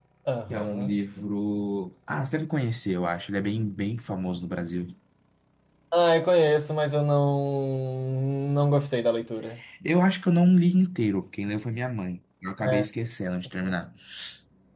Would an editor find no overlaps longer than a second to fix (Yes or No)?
Yes